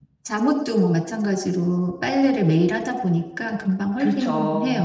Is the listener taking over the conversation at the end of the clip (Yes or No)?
Yes